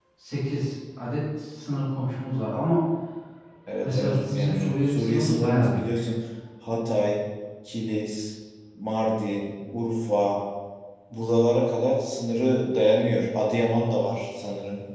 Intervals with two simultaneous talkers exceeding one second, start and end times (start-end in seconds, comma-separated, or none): 3.8-6.0